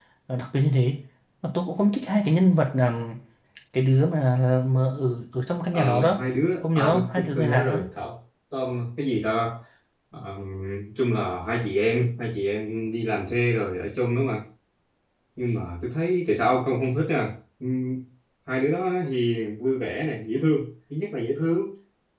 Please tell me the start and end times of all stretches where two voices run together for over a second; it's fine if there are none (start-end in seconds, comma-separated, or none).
6.6-7.8